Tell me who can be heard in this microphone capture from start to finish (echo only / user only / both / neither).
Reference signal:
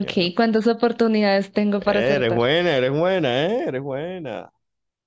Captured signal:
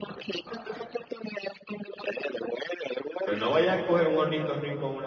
both